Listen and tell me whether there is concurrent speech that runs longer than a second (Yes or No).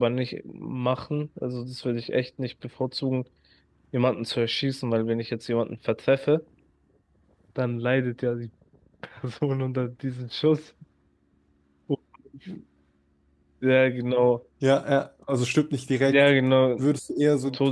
No